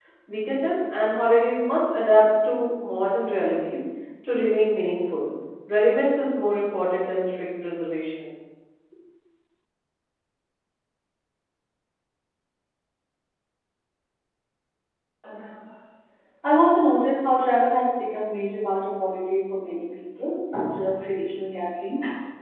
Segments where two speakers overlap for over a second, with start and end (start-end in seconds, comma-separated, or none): none